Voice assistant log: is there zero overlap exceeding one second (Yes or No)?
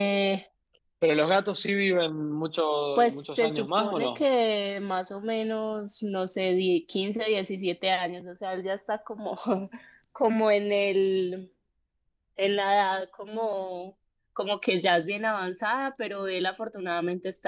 No